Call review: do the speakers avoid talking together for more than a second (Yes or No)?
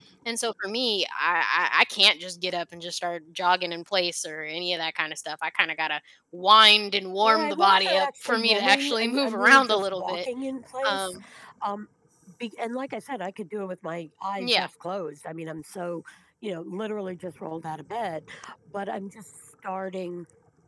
No